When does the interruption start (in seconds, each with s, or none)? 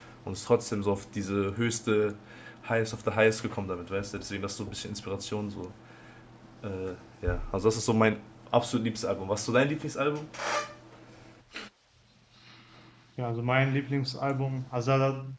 none